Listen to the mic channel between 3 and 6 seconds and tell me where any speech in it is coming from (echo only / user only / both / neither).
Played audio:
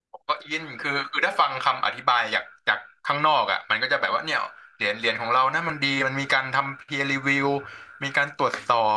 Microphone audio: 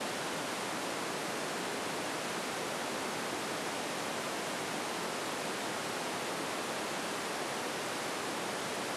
neither